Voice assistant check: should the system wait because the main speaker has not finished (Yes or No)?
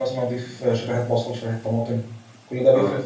No